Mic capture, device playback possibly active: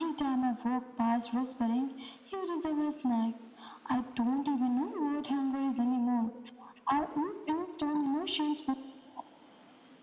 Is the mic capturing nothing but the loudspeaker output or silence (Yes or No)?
Yes